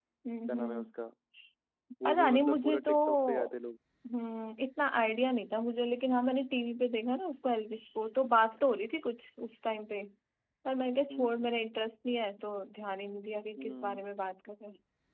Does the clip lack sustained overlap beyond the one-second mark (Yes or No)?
No